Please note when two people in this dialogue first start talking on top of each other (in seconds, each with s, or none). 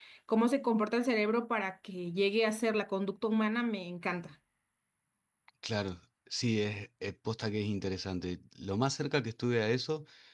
none